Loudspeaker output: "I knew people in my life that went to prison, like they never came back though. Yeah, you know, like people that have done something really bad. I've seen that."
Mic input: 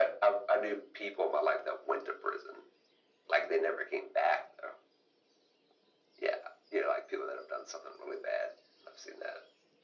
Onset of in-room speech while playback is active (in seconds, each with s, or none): none